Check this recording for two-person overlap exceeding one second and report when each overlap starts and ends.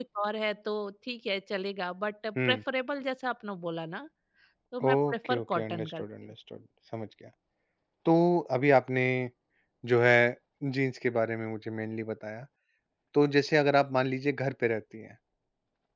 4.8-6.0

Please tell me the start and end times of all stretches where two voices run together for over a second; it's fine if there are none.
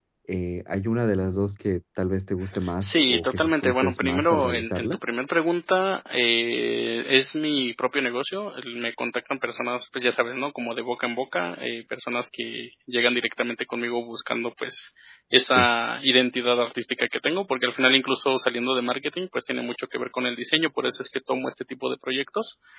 2.8-5.0

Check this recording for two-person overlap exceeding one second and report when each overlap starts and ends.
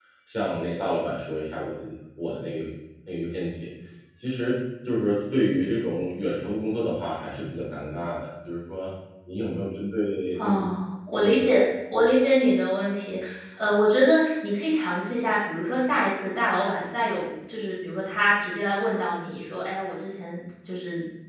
none

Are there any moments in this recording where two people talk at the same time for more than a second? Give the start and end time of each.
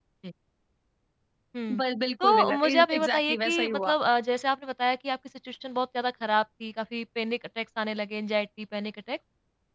2.2-3.9

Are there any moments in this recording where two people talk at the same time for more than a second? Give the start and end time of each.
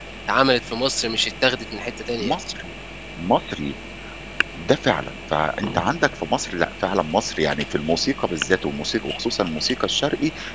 none

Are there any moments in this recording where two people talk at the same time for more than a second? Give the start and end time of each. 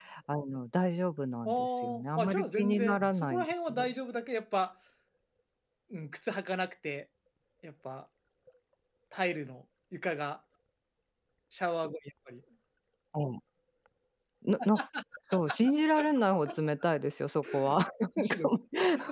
1.4-3.9

